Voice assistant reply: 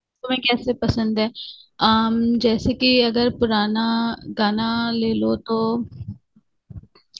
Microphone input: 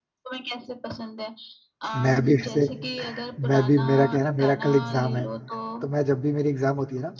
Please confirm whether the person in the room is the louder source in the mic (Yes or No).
Yes